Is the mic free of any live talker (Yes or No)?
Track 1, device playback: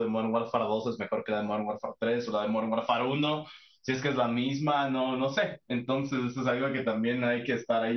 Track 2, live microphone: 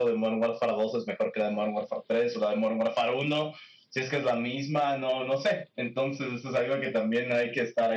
Yes